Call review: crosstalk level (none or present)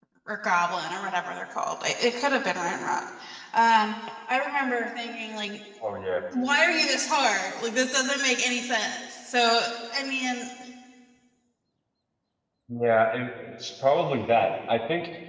none